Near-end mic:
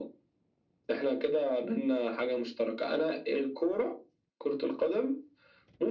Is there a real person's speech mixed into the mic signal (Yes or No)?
No